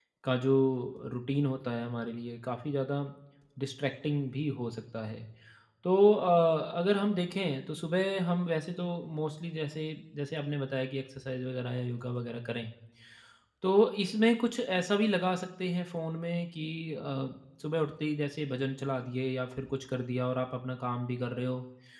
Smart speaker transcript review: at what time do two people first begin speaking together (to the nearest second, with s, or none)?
none